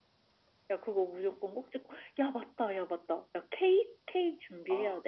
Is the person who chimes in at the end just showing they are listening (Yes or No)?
No